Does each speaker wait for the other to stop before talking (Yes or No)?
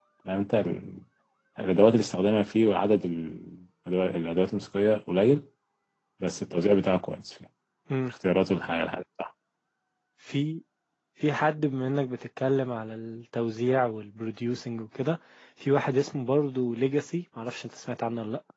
Yes